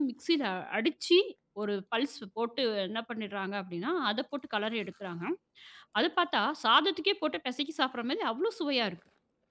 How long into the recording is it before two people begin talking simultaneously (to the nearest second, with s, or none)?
none